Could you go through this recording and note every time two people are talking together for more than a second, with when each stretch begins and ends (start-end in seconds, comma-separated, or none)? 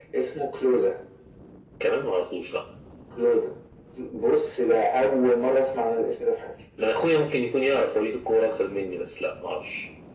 none